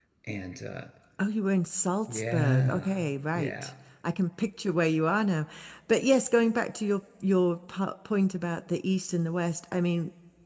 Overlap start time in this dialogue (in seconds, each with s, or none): 2.1 s